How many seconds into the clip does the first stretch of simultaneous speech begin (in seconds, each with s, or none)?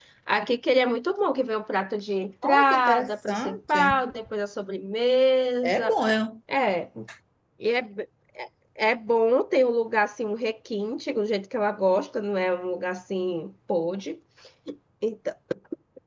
2.4 s